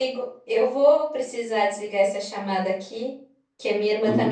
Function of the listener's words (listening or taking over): listening